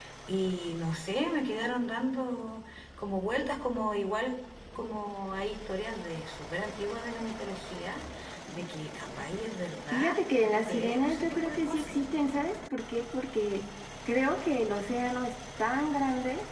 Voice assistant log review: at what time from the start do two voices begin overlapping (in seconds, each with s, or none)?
9.9 s